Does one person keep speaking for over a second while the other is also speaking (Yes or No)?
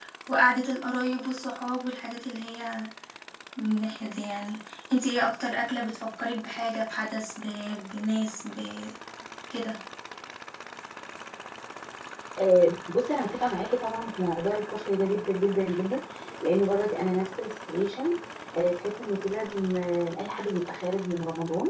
No